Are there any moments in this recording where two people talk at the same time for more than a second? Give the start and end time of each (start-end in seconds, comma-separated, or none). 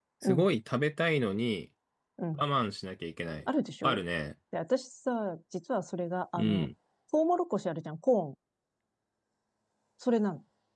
none